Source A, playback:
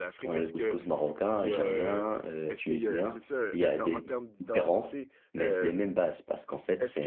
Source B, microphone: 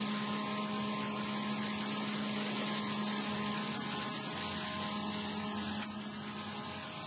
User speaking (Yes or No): No